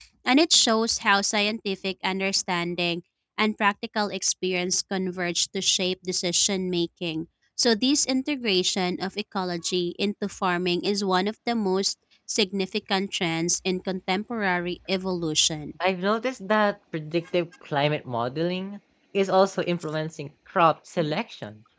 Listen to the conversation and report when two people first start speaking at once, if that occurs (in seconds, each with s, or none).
none